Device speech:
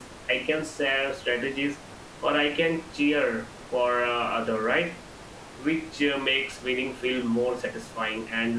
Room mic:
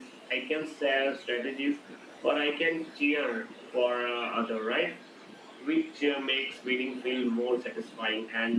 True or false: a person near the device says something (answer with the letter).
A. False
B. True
A